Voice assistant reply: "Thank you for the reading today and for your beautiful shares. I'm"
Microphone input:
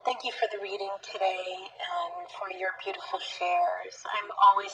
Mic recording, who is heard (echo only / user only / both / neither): echo only